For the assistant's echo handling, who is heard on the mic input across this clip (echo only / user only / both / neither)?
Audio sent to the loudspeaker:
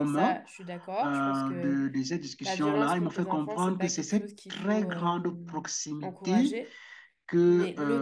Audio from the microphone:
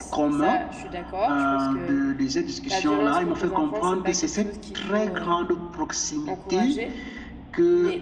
echo only